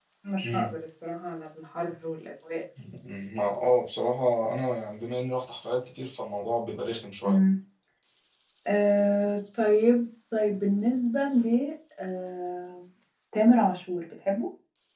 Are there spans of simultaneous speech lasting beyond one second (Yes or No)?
No